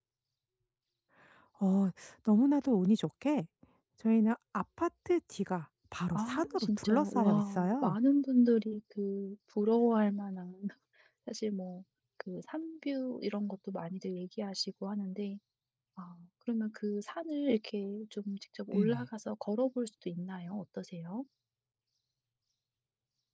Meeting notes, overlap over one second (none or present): present